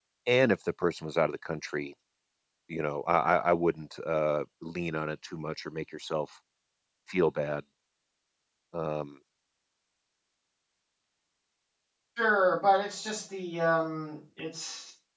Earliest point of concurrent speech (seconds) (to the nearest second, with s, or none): none